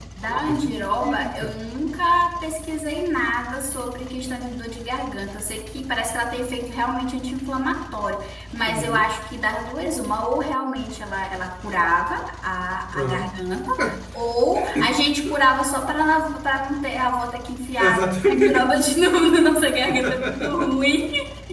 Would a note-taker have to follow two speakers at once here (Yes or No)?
Yes